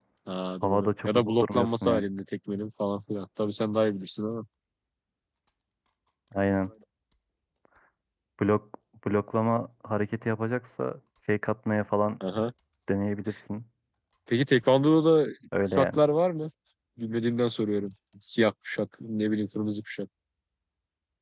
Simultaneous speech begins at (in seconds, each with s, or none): 0.6 s